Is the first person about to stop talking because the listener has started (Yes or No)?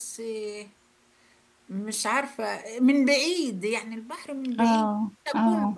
Yes